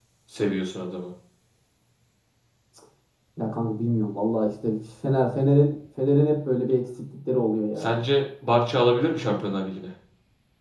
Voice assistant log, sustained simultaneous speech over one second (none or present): none